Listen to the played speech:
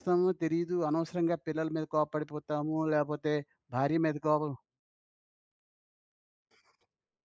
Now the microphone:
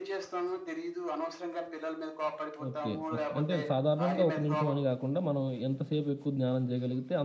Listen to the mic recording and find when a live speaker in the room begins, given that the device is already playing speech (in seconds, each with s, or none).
2.7 s